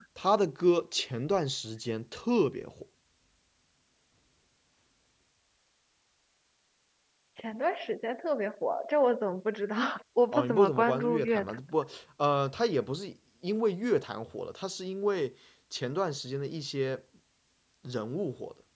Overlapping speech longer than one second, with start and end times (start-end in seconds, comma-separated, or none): 10.3-11.6